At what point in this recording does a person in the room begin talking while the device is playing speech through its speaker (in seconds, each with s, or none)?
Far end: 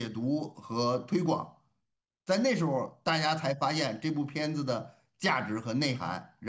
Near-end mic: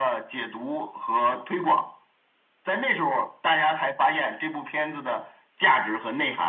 none